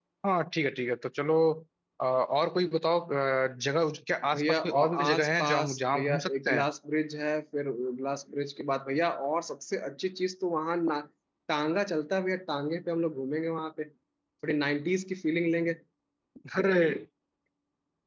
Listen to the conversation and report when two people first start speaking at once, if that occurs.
4.3 s

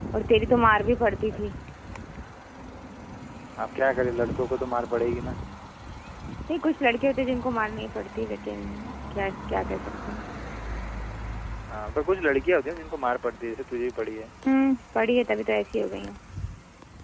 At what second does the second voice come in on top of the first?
none

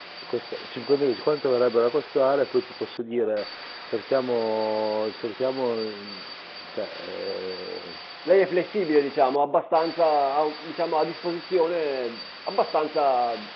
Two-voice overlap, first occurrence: none

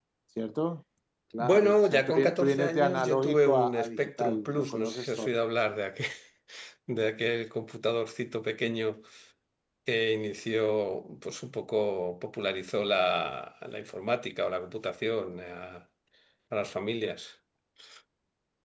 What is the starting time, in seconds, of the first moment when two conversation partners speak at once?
1.4 s

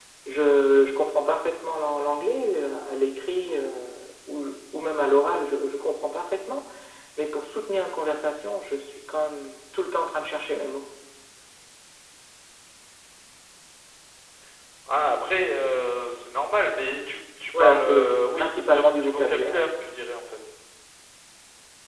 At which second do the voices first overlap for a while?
17.5 s

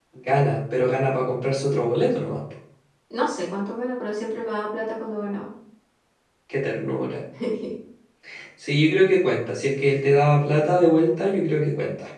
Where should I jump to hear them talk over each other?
none

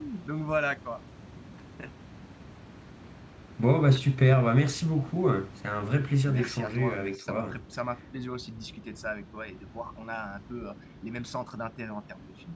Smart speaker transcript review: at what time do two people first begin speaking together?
6.2 s

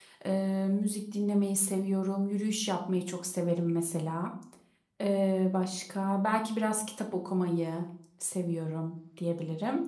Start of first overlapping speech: none

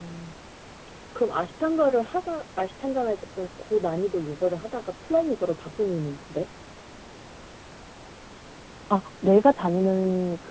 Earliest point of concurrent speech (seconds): none

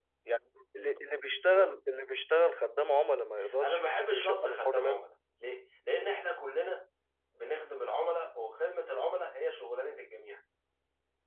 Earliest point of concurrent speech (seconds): 3.6 s

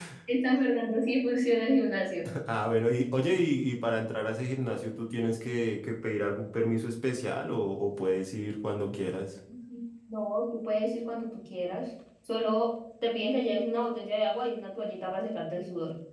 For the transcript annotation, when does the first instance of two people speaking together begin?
none

